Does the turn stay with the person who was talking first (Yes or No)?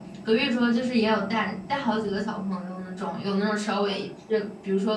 Yes